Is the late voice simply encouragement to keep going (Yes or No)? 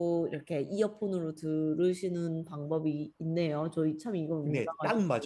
No